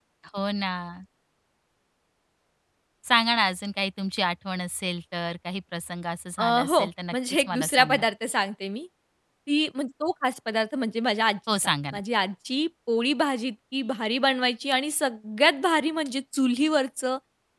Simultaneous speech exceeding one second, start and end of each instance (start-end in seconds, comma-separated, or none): 6.4-8.0